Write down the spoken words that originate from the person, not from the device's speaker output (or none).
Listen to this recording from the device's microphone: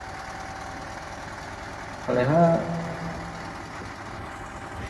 ᱟᱞᱮ ᱦᱚᱸ